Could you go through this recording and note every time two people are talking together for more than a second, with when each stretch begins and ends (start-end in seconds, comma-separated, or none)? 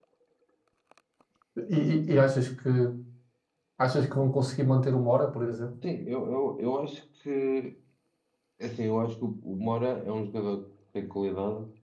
none